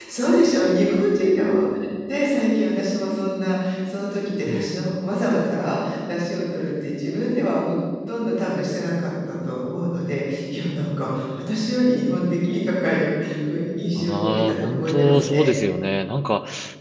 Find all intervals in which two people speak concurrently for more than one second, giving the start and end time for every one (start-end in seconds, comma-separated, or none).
14.0-15.5